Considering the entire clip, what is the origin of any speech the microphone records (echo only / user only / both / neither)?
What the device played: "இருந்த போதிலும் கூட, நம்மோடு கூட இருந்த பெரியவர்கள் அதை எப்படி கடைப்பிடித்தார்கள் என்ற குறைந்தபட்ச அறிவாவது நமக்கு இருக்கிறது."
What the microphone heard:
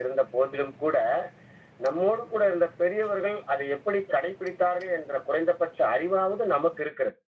echo only